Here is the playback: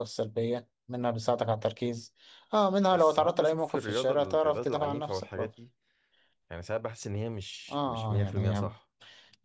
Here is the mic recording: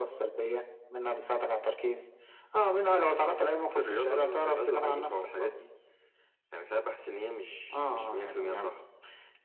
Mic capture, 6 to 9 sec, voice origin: echo only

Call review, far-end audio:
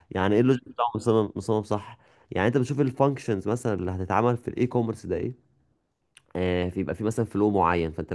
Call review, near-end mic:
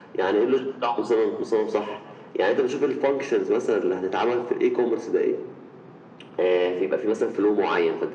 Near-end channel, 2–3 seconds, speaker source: echo only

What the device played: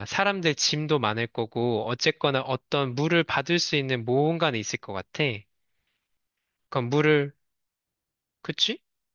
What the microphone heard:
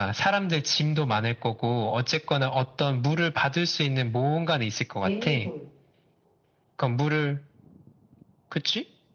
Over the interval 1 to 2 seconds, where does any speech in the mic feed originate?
echo only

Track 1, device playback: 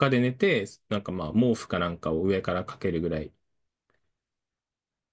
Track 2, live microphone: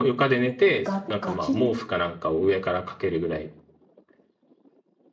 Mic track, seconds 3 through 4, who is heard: echo only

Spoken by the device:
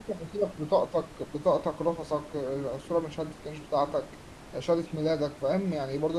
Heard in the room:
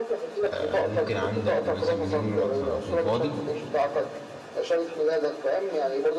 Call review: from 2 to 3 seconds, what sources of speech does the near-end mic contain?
both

